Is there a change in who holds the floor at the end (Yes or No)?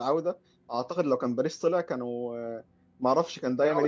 No